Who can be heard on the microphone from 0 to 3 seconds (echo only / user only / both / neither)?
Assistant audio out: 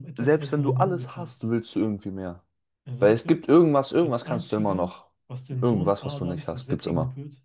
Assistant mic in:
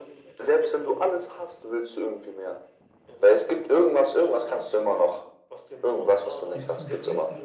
echo only